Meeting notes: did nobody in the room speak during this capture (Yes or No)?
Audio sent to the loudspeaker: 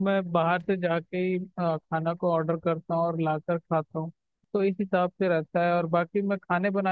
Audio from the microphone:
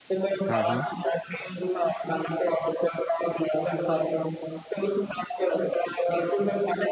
No